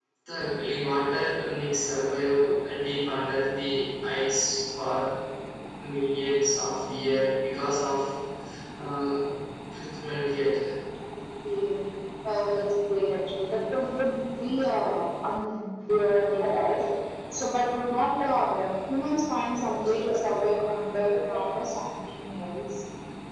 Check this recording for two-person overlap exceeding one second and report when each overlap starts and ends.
none

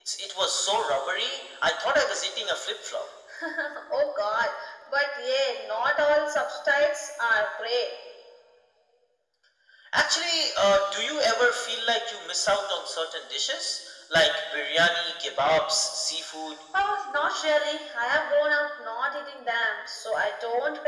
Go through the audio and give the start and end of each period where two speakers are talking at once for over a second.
none

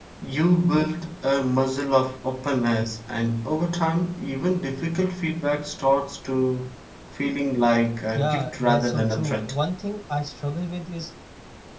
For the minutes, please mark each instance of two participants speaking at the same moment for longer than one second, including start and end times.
8.2-9.6

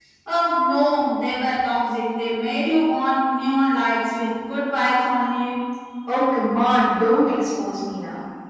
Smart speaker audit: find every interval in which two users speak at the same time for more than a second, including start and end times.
none

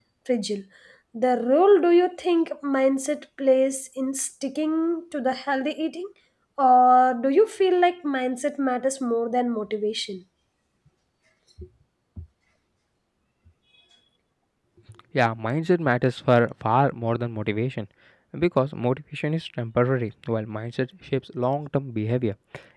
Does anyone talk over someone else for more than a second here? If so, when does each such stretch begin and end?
none

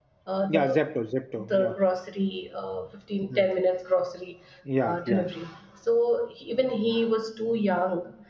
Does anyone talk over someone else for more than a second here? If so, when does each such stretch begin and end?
none

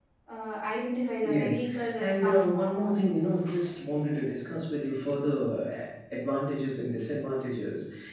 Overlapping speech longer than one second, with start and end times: 1.2-3.0

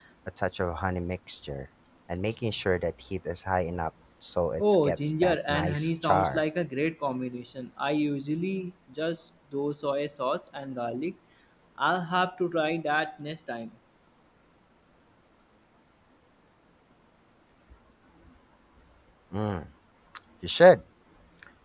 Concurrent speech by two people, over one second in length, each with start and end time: 4.6-6.4

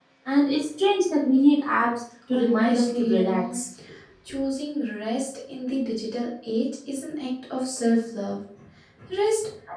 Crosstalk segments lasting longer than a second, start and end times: 2.3-3.6

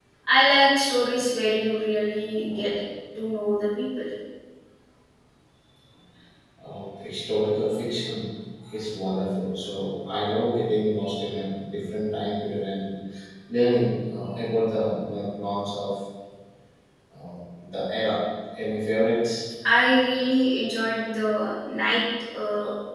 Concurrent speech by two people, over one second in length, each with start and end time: none

